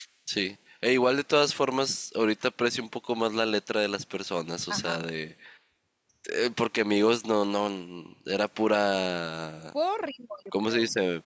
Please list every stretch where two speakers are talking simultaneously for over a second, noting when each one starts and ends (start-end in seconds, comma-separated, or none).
none